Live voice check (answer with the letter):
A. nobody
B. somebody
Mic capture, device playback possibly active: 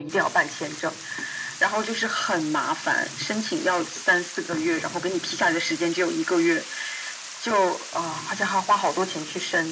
A